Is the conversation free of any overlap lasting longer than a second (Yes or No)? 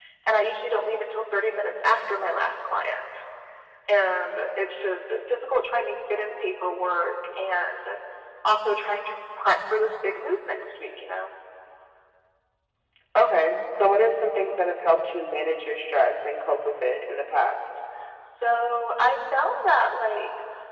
Yes